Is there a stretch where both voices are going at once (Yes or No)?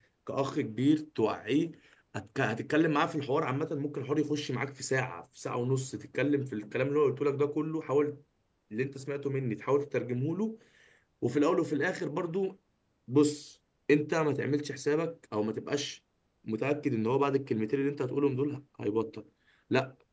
No